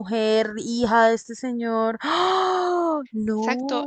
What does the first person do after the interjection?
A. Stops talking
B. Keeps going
A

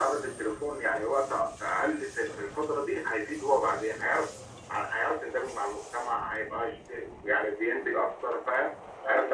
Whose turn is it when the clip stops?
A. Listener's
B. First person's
A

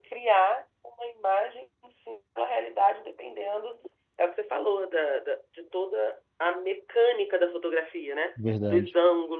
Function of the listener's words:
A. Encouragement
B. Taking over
A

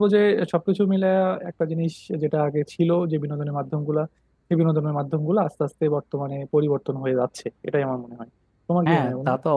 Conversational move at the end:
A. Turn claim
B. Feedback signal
A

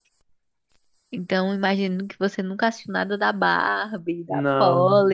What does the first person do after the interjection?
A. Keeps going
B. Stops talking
A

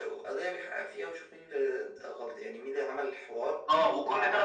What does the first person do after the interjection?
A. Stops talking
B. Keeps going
A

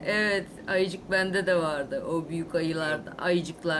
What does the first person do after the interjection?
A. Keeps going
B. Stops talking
A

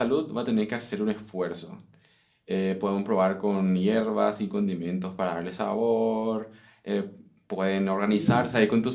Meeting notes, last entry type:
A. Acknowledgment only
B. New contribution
A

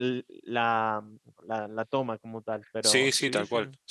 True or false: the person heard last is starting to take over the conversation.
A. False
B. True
B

